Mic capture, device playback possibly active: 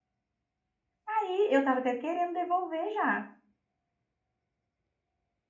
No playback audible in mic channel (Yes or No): Yes